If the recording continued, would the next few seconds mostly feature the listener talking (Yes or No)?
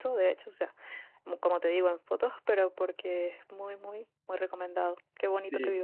Yes